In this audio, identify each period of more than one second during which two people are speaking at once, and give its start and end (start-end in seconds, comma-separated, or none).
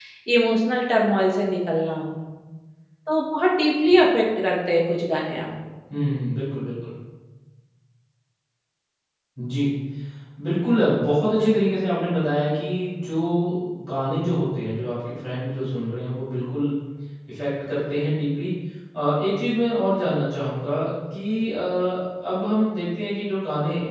none